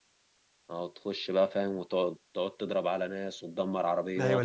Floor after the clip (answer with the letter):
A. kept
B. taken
B